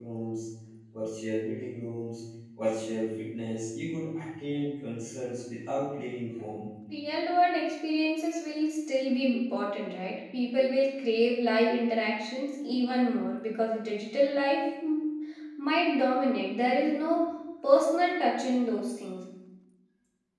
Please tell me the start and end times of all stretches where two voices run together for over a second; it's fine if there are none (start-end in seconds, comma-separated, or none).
none